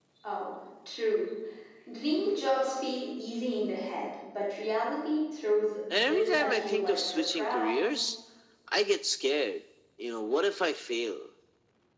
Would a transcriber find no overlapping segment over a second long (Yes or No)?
No